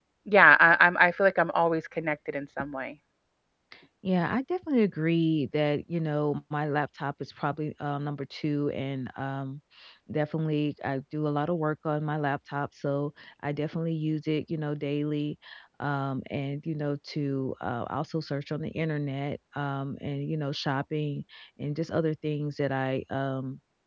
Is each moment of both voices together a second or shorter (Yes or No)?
Yes